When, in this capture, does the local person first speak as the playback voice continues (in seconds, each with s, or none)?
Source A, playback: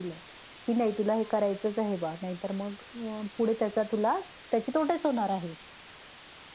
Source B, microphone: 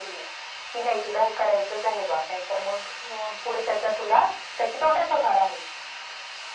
none